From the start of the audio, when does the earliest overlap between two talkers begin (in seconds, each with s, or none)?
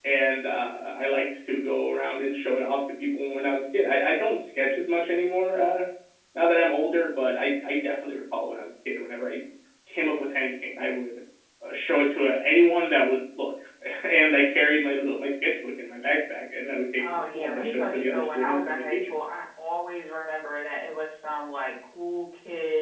17.0 s